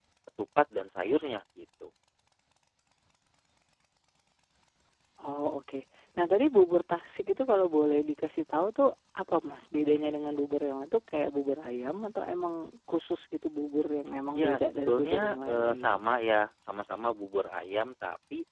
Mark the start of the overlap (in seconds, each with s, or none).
14.3 s